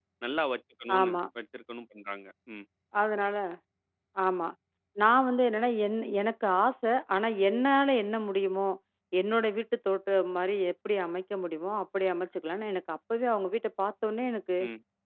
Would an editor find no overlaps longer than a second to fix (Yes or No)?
Yes